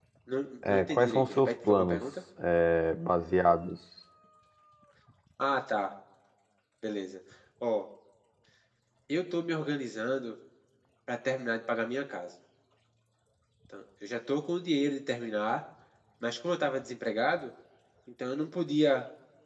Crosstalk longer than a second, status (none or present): present